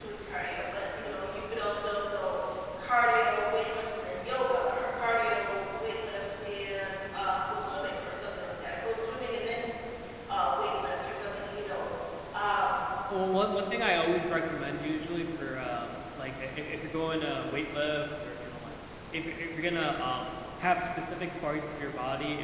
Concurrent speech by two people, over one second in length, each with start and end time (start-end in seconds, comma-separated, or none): none